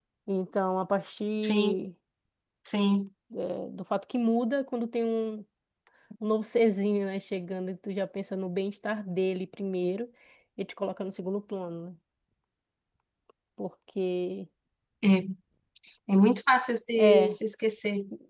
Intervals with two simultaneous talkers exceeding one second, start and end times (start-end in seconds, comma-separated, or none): none